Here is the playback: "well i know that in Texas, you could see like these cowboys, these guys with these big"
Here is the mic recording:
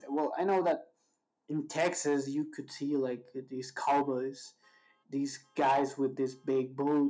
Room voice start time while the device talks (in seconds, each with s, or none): none